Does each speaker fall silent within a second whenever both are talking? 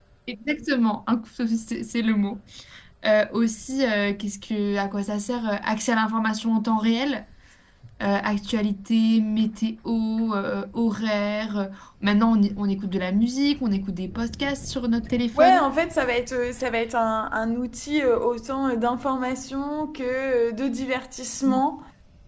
Yes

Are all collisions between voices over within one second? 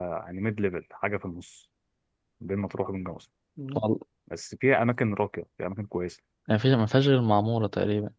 Yes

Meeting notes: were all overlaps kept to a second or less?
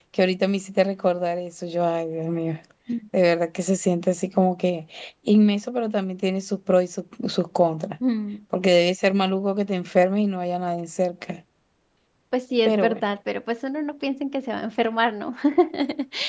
Yes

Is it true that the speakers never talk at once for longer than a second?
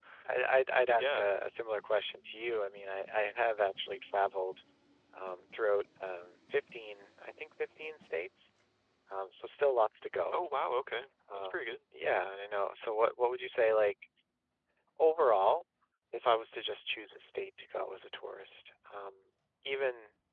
Yes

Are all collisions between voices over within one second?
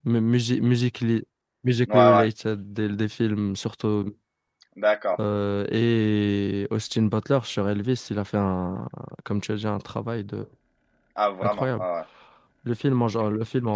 Yes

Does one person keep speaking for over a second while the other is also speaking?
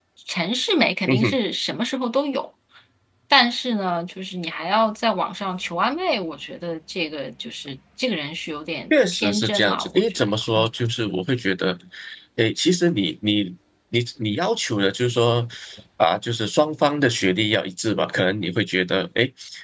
Yes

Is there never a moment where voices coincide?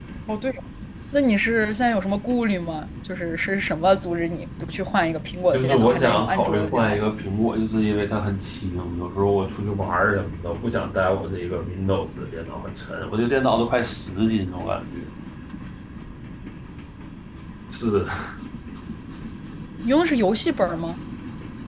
No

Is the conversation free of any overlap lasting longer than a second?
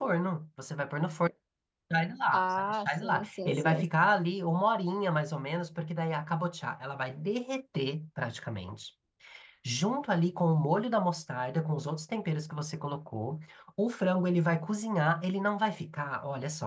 No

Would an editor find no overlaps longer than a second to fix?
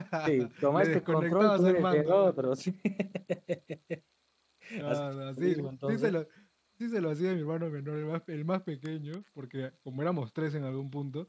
No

